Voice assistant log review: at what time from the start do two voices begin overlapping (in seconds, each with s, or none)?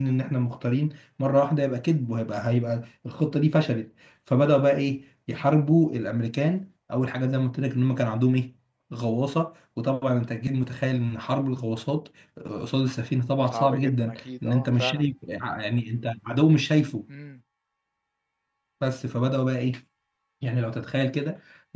13.5 s